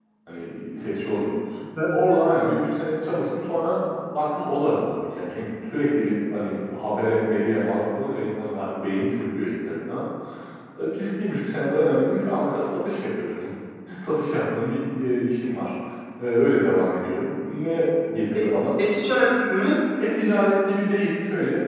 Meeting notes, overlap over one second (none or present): none